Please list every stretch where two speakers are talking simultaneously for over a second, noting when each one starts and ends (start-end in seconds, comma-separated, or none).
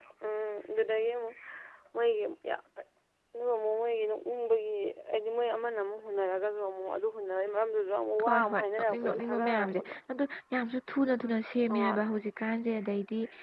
8.2-9.9